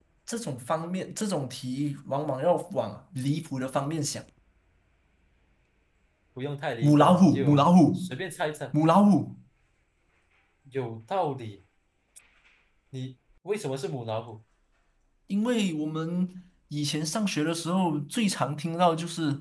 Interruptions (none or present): present